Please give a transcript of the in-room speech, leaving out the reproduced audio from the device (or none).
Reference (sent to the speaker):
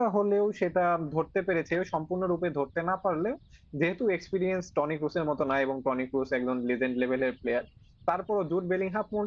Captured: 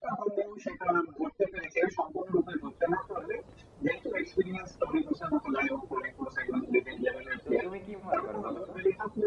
তো তুমি কি মনে করো বলো তো